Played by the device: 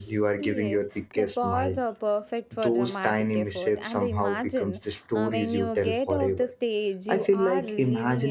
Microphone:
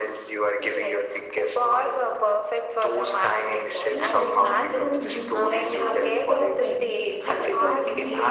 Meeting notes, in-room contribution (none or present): present